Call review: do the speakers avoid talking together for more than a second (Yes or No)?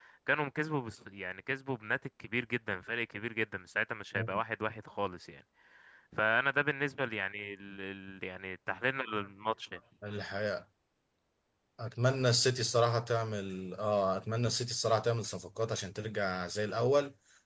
Yes